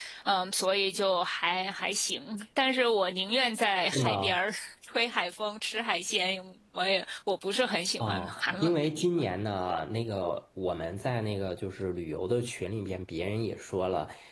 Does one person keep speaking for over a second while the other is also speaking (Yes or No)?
Yes